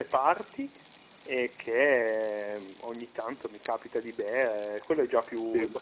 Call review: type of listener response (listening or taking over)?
listening